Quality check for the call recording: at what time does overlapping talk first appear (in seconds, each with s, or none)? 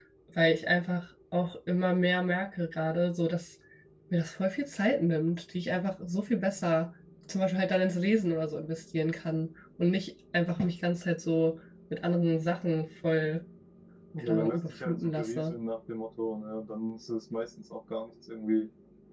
14.3 s